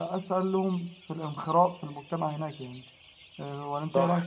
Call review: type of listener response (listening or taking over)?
taking over